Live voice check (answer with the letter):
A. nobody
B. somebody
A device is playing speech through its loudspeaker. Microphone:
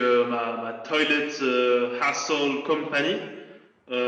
A